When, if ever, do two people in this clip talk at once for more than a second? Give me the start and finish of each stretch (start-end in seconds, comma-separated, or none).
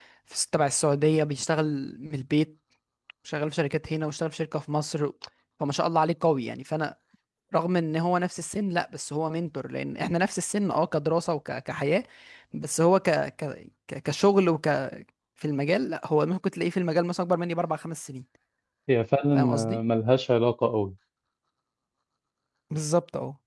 none